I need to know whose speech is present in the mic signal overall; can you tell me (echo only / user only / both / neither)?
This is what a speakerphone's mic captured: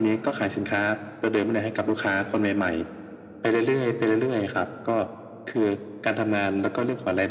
echo only